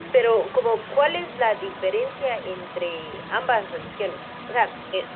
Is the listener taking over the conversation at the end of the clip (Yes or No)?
No